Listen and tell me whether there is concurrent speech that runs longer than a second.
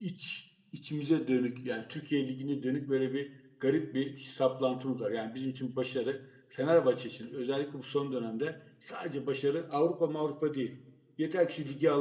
No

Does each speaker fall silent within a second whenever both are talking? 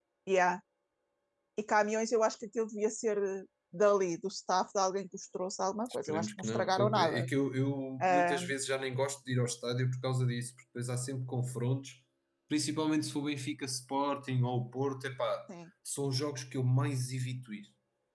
No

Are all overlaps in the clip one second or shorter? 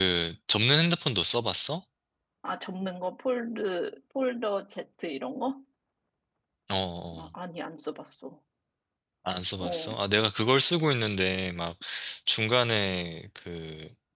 Yes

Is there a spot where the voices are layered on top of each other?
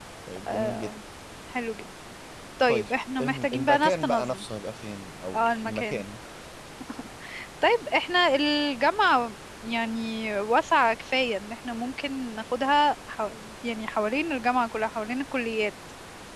Yes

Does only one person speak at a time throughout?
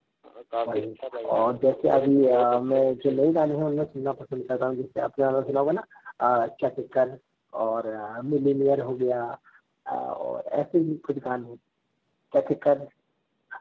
No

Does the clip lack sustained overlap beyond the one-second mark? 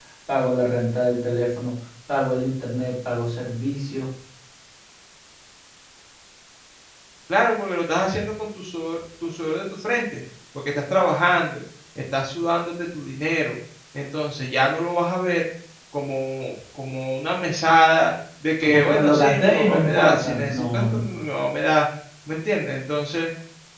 No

